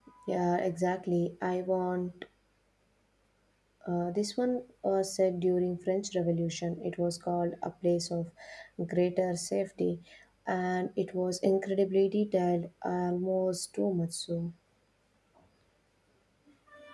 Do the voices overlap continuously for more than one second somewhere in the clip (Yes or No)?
No